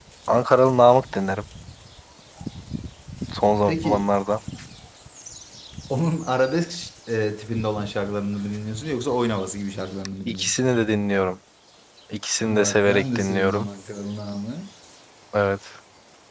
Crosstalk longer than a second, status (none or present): present